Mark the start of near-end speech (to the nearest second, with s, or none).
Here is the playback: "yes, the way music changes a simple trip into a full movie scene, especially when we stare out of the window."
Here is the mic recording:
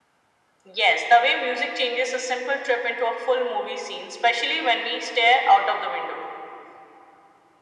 none